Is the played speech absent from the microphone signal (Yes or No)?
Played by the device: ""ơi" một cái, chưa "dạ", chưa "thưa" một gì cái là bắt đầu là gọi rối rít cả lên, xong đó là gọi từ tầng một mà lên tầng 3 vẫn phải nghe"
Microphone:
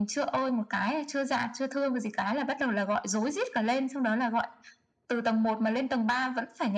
No